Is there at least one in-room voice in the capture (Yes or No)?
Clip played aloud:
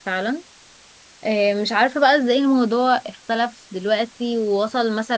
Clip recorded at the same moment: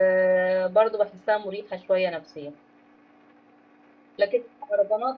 Yes